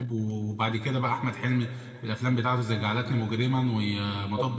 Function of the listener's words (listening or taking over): listening